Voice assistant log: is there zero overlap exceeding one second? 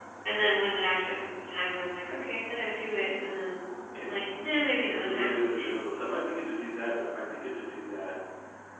Yes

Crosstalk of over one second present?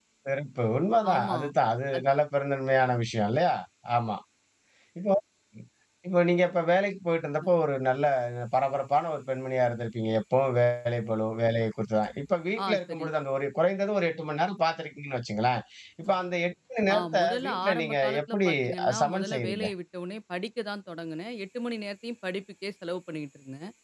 Yes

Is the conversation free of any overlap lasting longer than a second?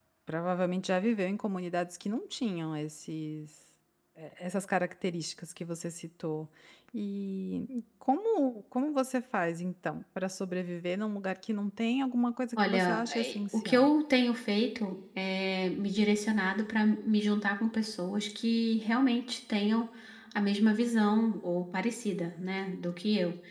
No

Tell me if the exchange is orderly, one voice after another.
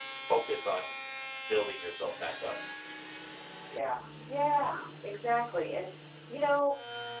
Yes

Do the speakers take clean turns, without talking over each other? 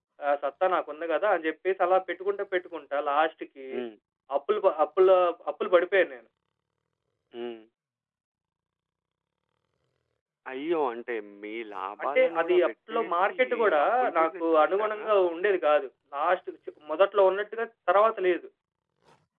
No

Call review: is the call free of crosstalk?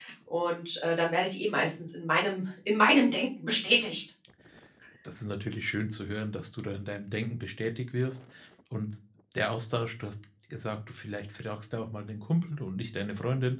Yes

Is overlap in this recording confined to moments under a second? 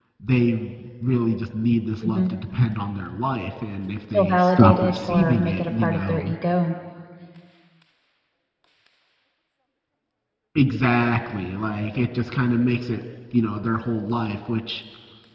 No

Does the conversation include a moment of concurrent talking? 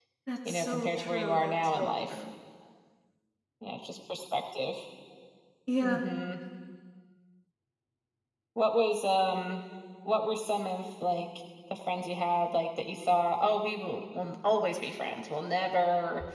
Yes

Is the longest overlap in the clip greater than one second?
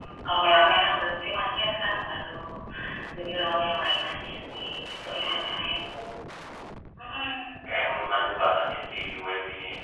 No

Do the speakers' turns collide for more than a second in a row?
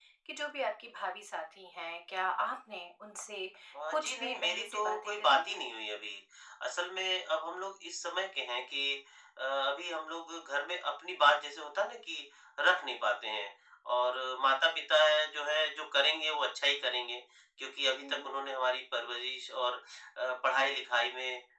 Yes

